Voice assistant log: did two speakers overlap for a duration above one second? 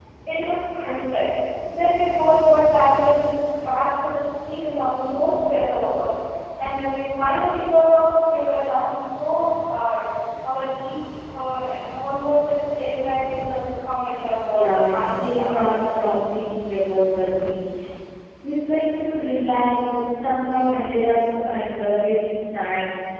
Yes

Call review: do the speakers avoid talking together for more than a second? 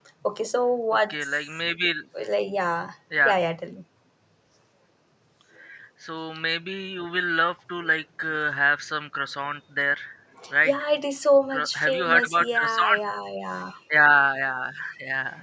No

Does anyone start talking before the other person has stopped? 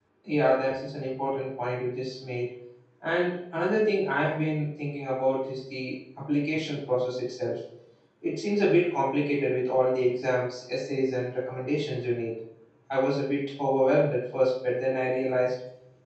No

